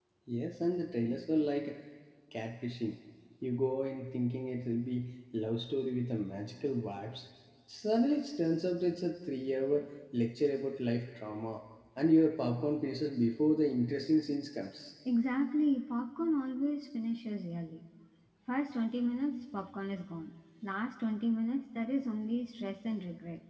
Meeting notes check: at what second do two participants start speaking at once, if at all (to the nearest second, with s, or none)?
none